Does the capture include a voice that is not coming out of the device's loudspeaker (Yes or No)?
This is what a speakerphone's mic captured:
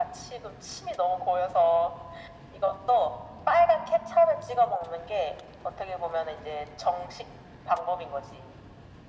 No